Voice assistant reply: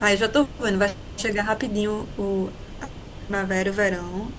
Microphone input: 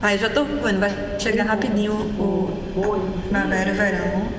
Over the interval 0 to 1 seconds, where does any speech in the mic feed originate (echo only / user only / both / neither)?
echo only